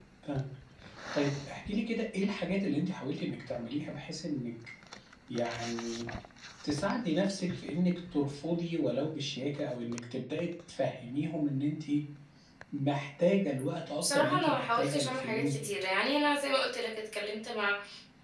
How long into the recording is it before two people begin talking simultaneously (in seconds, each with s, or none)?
14.0 s